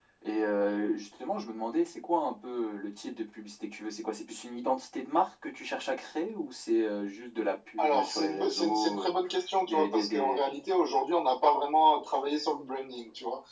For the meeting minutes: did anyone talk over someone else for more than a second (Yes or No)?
Yes